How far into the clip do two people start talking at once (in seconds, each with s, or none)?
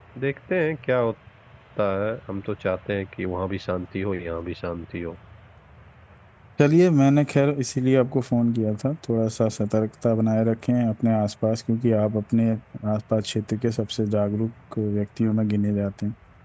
none